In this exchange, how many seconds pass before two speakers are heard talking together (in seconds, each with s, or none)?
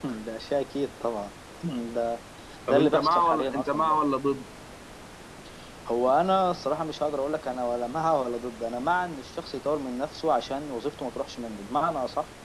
2.7 s